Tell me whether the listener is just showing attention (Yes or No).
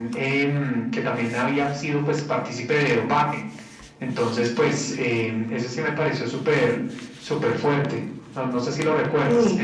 No